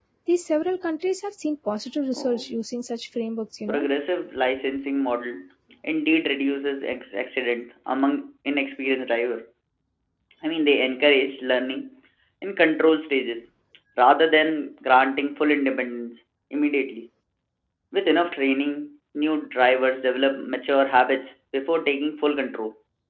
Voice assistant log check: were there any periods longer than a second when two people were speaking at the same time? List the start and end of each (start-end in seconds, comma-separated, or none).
none